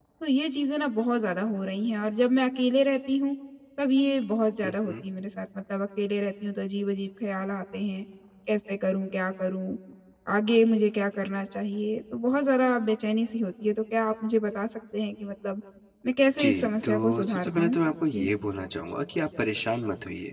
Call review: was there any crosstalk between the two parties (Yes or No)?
Yes